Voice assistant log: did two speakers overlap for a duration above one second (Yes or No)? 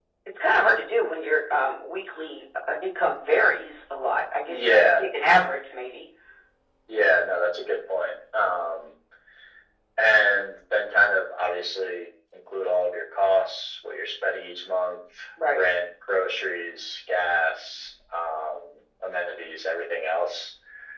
No